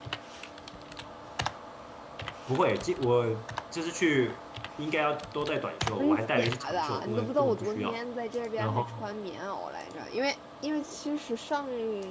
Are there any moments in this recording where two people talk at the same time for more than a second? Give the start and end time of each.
6.0-8.0

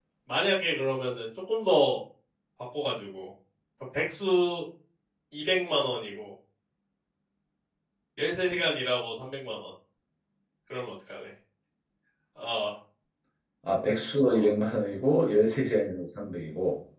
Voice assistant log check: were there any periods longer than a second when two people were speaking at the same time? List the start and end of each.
none

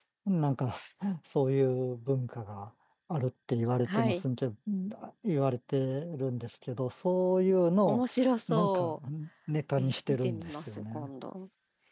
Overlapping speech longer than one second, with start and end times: 9.8-11.1

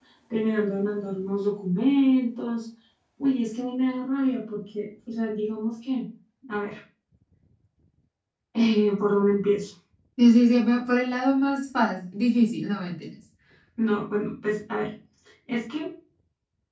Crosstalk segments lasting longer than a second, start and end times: none

